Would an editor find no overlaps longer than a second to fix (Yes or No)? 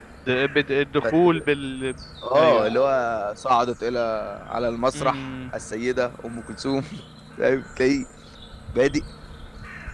Yes